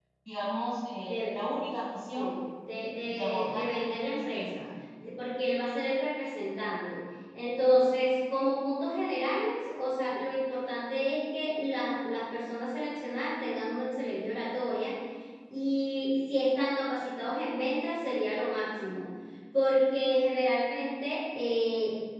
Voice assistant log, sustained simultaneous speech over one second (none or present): present